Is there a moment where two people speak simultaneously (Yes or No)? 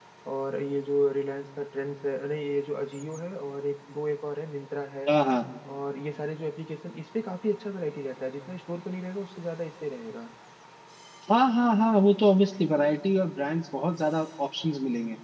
No